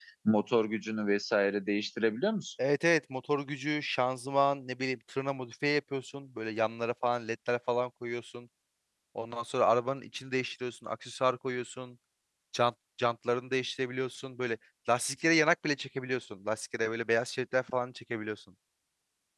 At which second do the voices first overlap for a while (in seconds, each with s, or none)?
none